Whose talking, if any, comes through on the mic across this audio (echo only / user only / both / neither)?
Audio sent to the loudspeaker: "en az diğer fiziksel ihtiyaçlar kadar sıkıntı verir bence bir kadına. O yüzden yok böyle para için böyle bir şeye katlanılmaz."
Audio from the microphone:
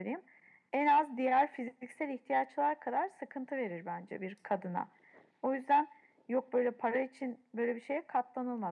echo only